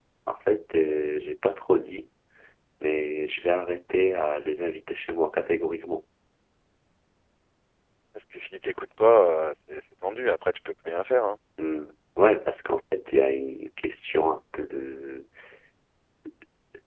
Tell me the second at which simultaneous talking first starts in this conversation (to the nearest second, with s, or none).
none